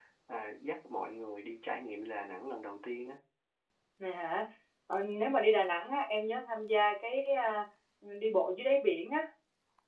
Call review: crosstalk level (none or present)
none